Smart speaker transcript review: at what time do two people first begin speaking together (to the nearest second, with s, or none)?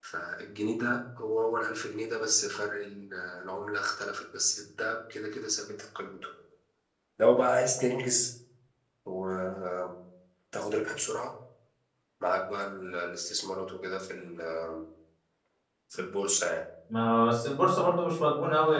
none